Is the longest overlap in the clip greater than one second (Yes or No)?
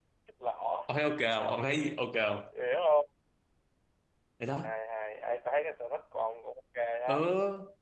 No